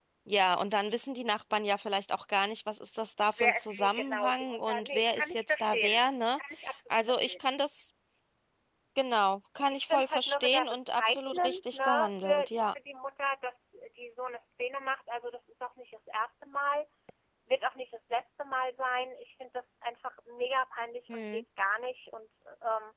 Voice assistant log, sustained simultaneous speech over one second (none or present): present